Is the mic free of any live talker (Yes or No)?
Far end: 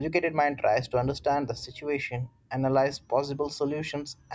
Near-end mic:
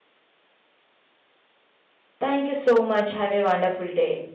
No